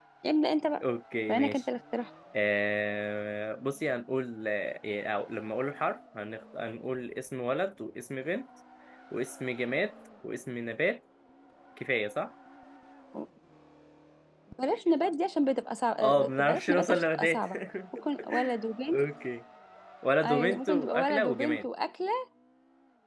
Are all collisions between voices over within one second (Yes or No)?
No